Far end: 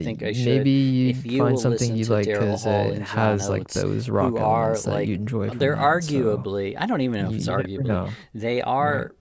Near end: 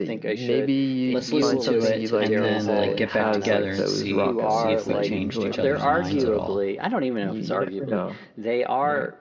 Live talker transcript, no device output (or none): Let's listen to it and then like get back together and see see if we've changed each other's minds at all.